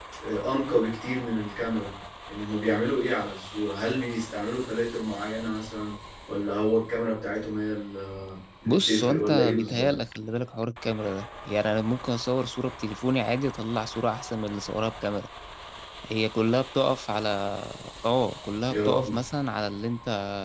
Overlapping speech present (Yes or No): Yes